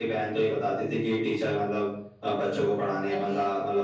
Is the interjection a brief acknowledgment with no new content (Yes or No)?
Yes